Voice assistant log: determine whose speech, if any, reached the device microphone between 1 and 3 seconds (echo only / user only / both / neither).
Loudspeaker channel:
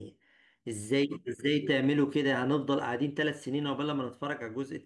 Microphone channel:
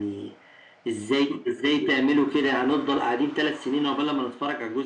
echo only